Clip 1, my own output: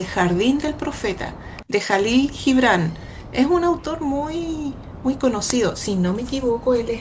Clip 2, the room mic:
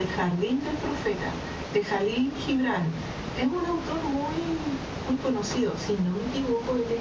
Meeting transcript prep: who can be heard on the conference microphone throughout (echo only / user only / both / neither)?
echo only